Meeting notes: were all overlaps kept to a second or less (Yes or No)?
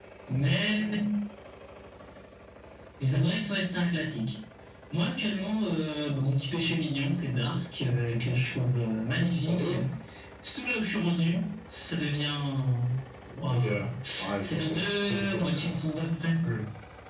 No